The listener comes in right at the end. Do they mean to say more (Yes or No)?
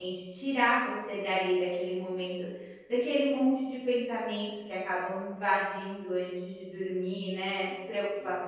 No